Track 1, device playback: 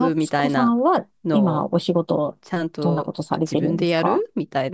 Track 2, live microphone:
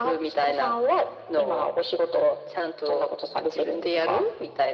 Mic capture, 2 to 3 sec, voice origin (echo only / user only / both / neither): echo only